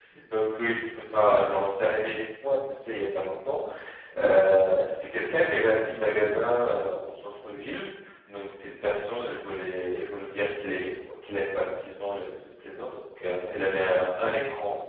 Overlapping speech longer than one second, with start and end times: none

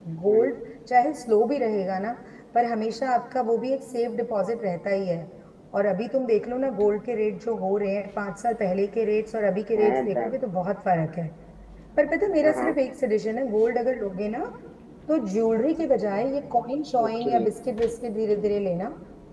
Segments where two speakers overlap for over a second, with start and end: none

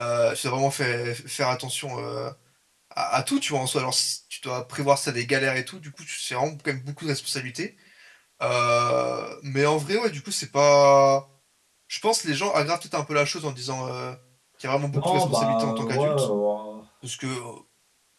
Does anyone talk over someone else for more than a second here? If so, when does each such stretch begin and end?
14.9-16.3

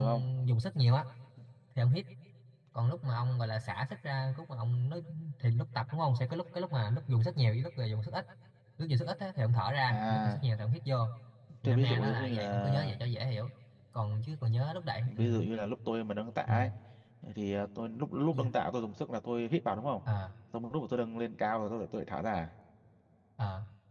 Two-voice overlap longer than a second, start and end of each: 11.6-12.9

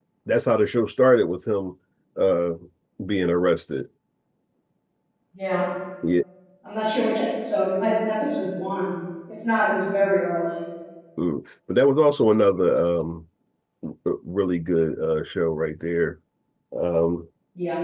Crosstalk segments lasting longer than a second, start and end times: none

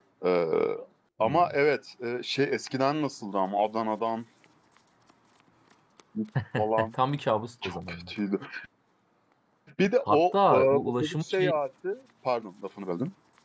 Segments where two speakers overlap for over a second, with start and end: 10.1-11.5

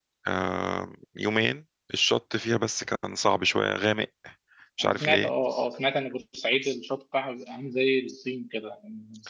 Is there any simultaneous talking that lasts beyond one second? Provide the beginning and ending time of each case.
none

